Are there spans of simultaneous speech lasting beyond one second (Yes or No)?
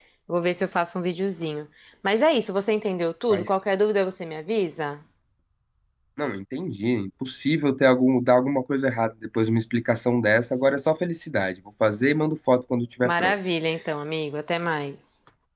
No